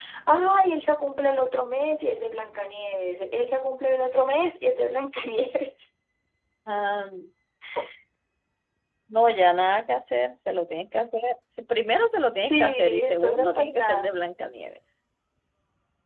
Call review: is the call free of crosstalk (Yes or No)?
No